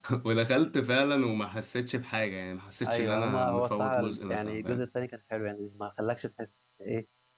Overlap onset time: 3 s

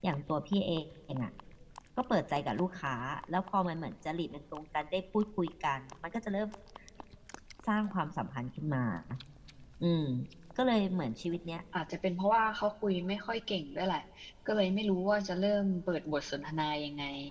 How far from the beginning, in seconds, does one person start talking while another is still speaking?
none

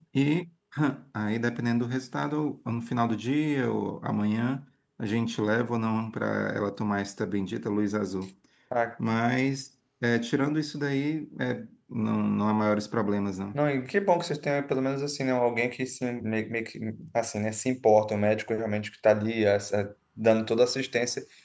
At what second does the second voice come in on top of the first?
none

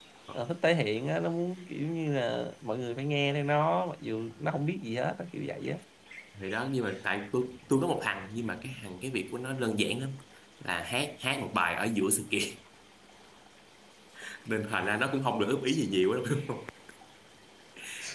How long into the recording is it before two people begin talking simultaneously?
none

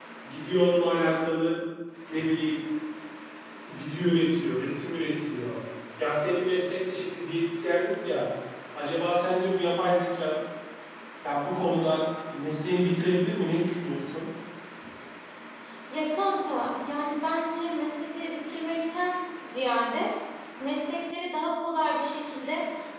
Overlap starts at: none

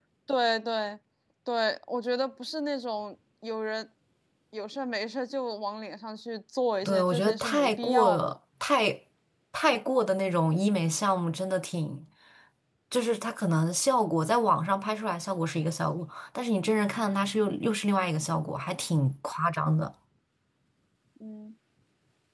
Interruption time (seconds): 7 s

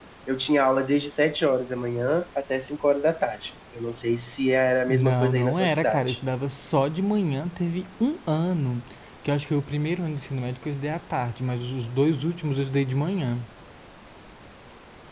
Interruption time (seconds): 5 s

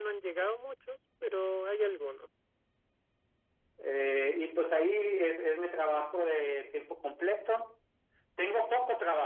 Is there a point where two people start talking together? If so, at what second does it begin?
none

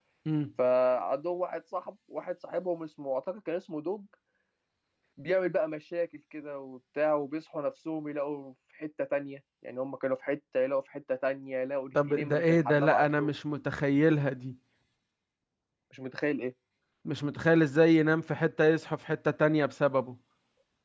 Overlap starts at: 12 s

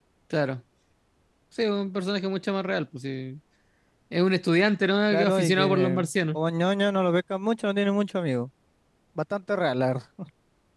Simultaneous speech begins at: 5 s

